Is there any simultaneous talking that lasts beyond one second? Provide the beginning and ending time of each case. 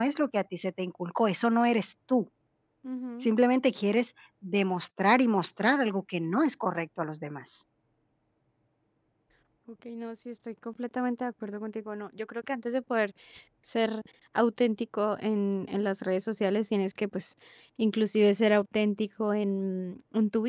none

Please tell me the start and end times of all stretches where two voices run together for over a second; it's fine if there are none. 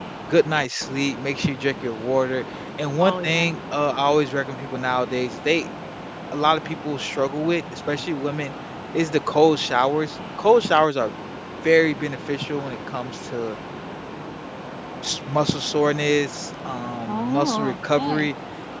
17.1-18.3

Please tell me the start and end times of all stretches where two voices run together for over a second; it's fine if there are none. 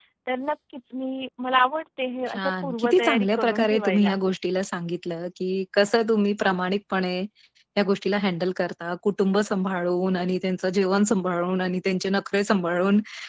2.3-4.1

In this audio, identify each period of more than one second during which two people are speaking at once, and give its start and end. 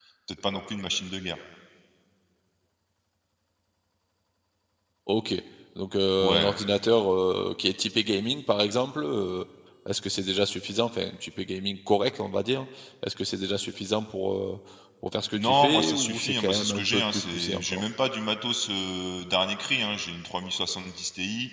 15.4-17.8

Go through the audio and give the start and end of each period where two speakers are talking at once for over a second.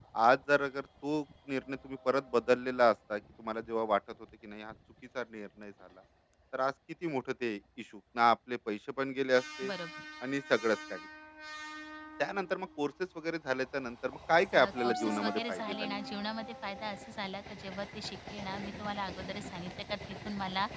14.5-15.9

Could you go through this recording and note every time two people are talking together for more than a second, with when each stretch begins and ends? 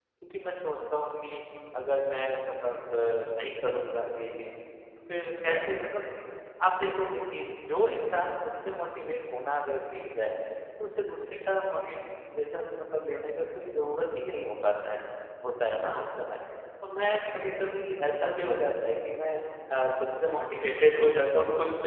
17.2-18.5

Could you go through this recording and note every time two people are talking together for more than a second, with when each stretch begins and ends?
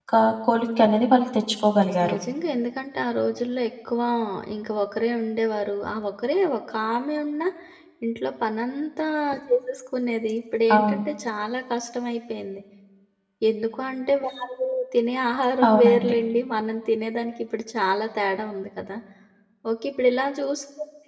none

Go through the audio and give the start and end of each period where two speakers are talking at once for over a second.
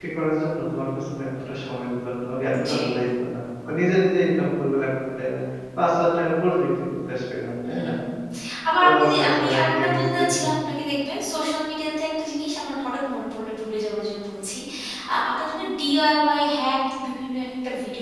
8.8-10.2

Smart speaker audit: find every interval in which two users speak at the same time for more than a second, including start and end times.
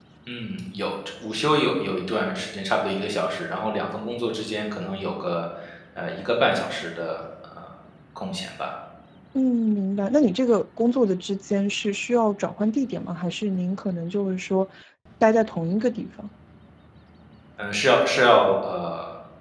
none

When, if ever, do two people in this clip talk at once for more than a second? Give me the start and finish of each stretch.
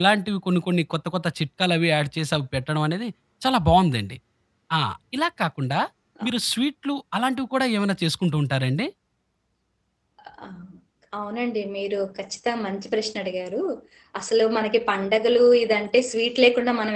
none

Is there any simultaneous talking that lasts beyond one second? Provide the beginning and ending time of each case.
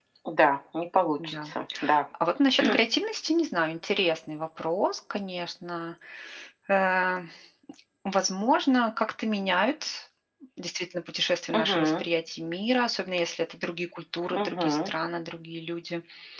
none

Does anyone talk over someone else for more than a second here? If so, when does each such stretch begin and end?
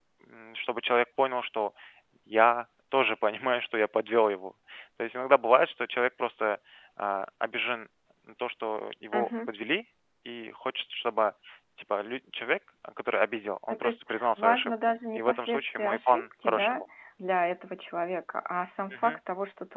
13.7-16.8

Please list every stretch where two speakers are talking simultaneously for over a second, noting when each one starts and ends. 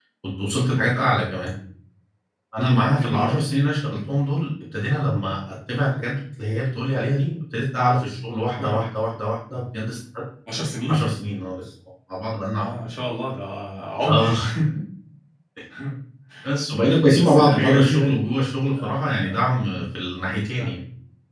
17.1-18.3

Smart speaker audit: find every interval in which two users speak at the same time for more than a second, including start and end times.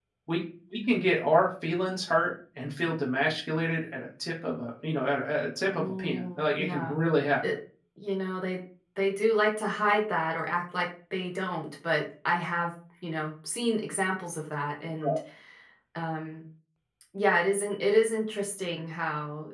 5.7-7.0

